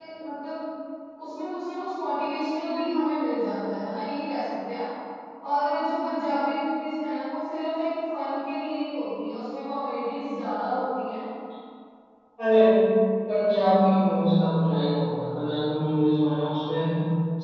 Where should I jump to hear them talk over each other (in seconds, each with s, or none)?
none